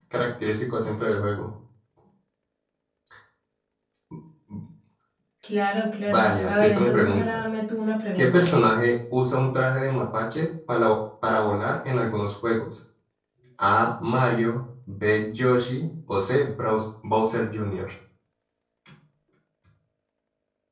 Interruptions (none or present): present